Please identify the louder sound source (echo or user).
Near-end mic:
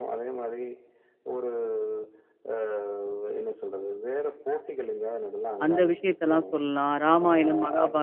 user